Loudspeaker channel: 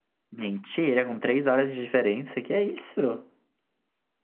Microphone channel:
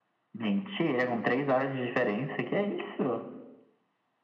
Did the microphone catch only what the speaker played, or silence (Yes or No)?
Yes